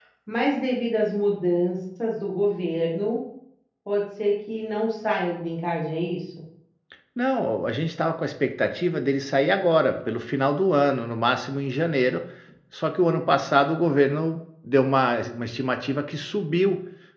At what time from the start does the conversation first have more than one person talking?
none

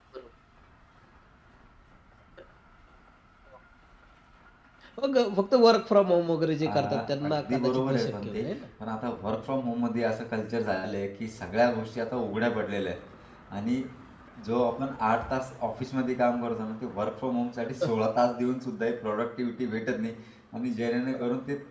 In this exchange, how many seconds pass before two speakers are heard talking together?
7 s

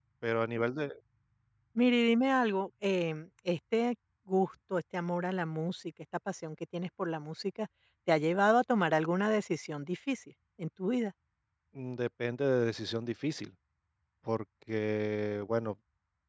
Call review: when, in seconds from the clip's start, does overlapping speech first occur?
none

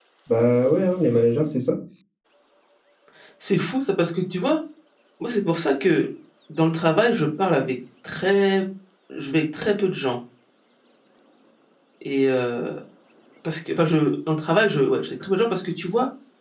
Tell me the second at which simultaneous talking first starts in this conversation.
none

